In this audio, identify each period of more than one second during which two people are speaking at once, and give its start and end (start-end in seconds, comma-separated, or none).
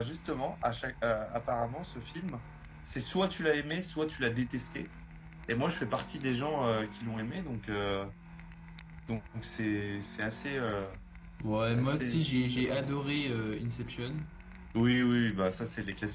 11.6-12.8